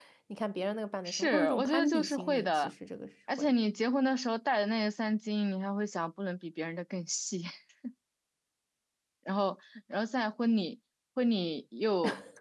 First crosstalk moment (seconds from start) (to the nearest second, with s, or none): 1 s